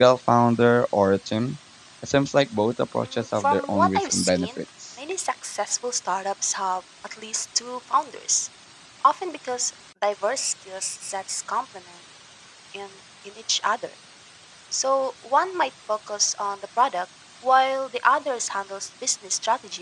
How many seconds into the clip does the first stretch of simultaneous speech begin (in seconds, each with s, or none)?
3.2 s